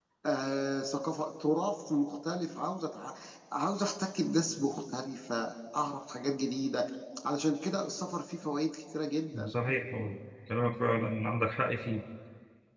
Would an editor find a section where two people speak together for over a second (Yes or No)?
No